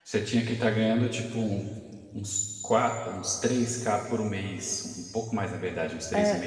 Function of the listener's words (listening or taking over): taking over